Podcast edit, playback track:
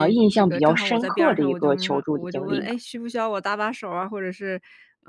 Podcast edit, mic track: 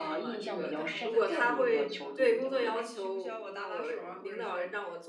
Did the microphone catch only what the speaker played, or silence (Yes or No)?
No